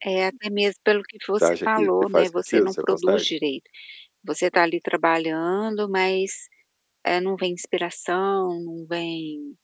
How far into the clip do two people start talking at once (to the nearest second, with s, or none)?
1 s